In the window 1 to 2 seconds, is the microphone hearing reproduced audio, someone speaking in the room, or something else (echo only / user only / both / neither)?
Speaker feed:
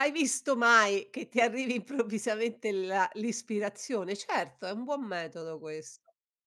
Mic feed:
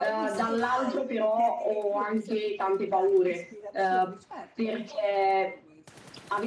both